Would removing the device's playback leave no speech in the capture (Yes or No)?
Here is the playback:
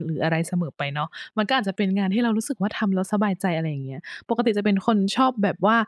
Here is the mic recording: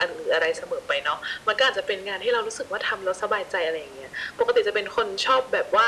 Yes